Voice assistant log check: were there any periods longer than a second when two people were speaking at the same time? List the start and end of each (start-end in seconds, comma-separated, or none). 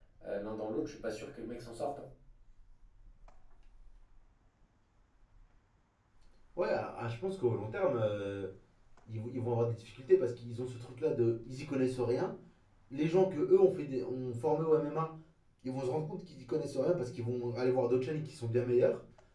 none